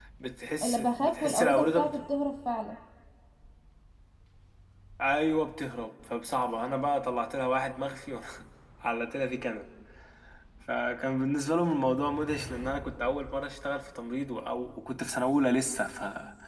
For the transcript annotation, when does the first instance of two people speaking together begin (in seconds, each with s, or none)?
0.6 s